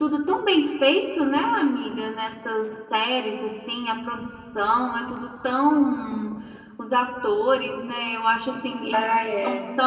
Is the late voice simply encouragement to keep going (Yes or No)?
Yes